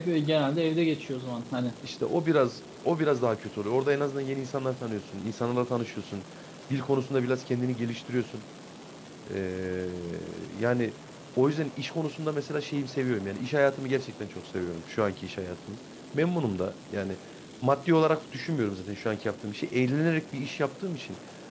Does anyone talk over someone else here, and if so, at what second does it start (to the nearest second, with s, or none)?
none